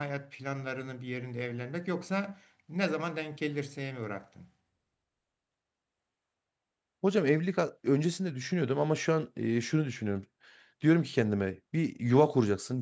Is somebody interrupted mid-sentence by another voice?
No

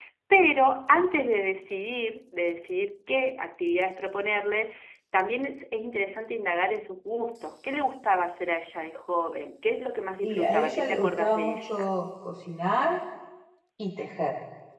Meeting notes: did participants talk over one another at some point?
Yes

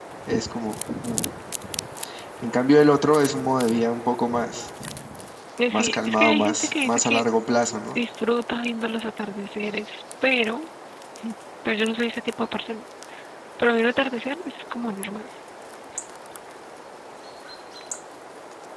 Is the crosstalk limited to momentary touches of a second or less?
No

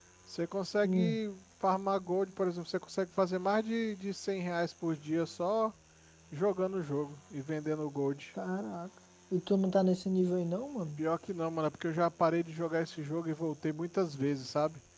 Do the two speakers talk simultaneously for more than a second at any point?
No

